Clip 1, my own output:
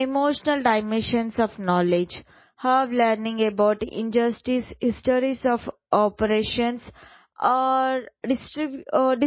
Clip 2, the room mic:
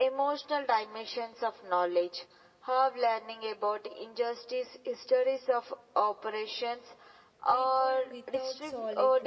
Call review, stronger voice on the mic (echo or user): echo